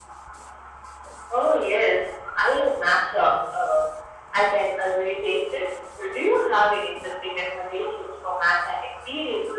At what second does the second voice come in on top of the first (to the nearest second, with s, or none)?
none